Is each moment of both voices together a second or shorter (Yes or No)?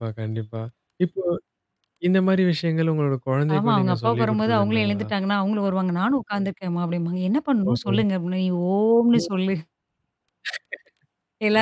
No